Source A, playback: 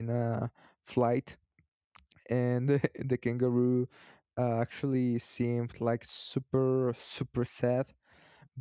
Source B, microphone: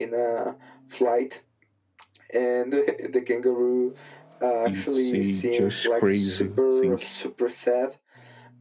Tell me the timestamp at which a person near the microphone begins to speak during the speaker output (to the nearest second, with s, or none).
5 s